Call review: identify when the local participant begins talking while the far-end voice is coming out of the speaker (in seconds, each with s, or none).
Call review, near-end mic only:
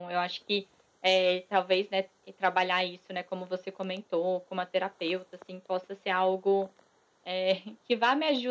none